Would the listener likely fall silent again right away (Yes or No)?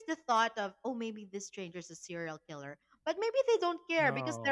Yes